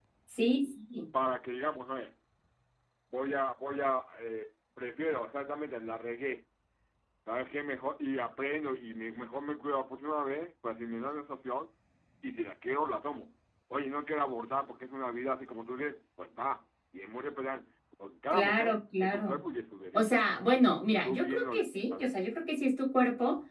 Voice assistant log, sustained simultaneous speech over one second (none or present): present